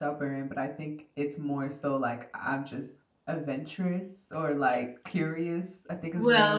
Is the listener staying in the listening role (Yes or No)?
No